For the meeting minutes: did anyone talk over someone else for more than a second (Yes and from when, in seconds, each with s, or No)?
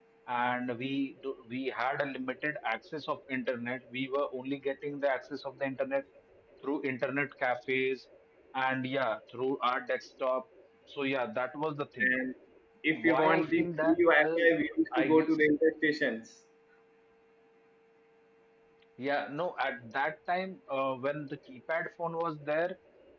Yes, from 13.1 s